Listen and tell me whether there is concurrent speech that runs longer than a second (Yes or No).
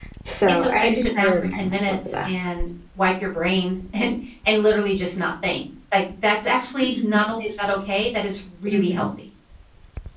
Yes